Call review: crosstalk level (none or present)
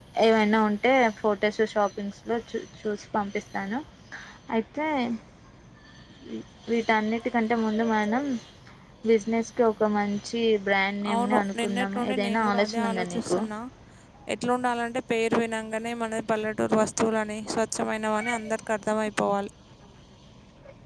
present